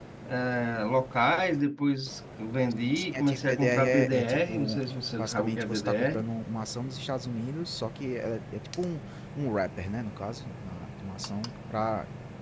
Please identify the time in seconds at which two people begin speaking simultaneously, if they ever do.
3.0 s

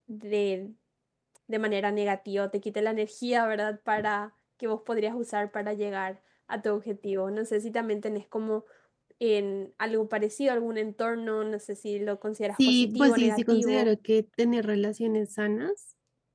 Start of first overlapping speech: 12.6 s

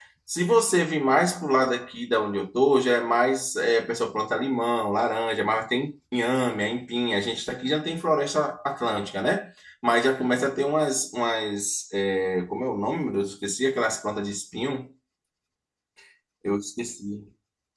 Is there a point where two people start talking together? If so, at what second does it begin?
none

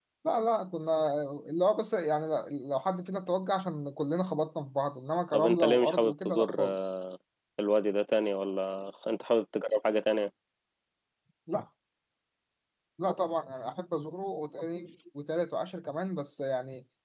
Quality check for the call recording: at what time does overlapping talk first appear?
5.3 s

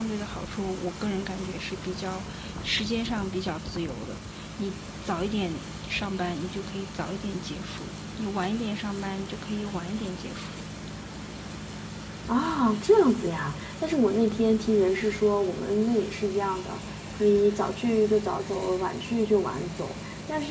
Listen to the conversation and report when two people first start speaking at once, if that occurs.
none

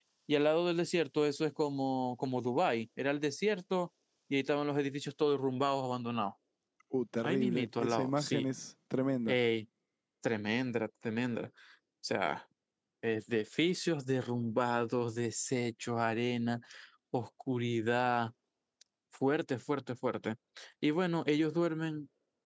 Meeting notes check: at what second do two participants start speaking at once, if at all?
7.2 s

